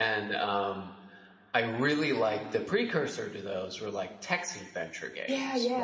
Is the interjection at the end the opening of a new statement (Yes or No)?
No